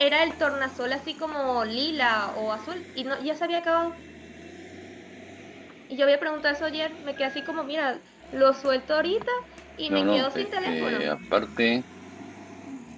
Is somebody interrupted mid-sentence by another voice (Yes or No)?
Yes